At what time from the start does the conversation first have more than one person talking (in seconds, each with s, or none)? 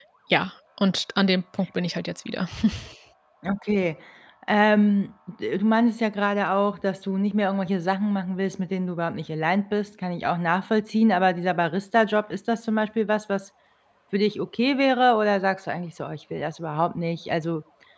none